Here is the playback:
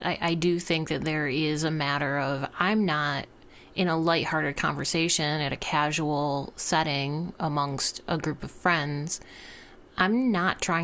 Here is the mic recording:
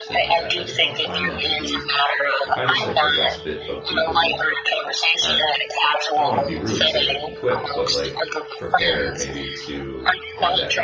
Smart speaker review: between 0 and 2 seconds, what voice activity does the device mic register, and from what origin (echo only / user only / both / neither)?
both